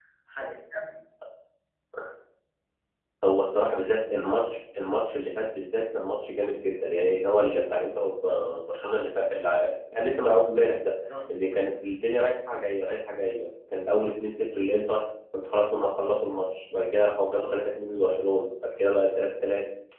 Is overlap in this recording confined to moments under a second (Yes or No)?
Yes